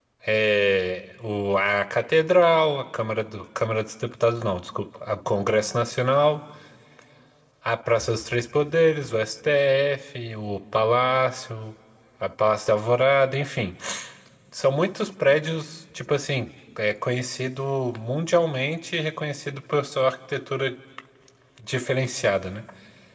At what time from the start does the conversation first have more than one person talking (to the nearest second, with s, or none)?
none